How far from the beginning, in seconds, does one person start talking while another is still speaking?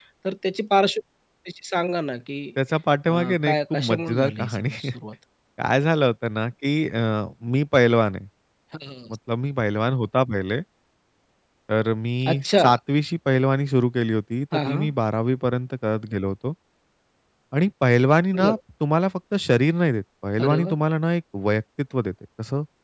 3.1 s

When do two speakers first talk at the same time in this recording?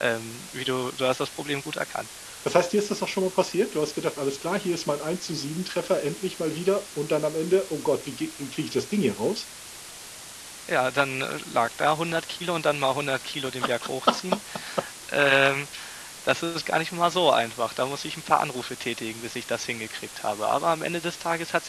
none

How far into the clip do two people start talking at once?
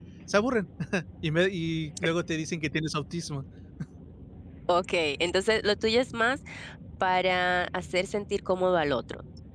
none

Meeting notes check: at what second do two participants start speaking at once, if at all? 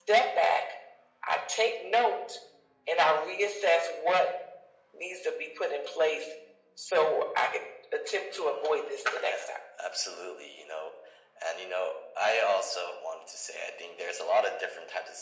8.3 s

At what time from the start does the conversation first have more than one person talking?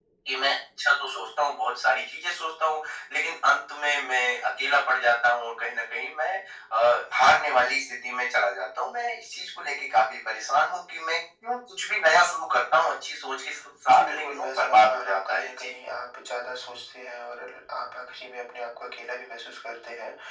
13.9 s

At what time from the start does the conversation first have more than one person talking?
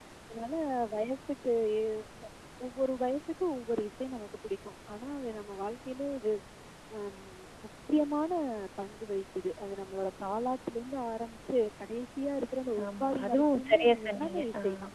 12.8 s

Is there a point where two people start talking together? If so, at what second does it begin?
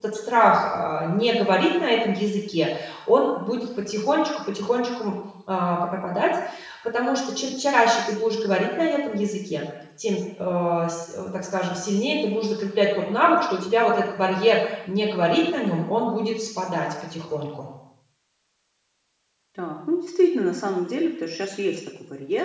none

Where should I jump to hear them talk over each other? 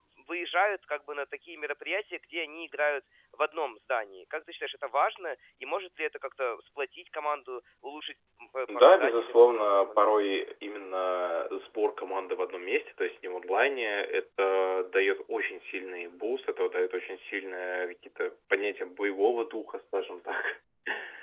8.7 s

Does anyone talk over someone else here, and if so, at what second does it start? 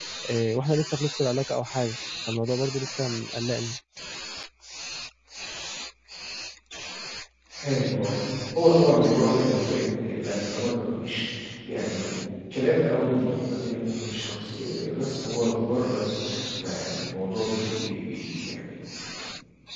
none

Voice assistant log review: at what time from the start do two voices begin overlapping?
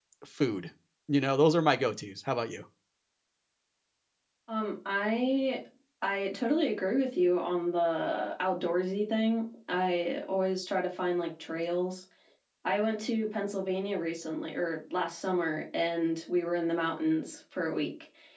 none

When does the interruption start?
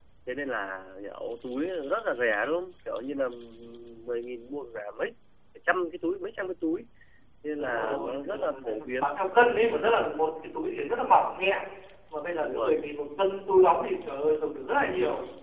7.6 s

